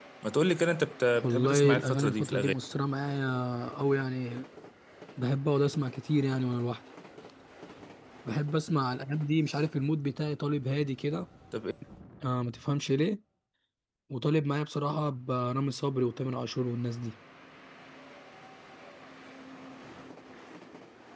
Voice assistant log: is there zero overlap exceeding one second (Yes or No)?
No